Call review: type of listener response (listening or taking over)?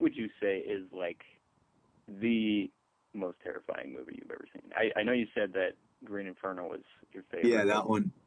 taking over